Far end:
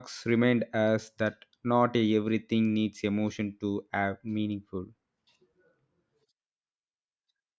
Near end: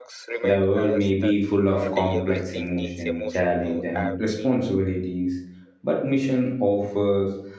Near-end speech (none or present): present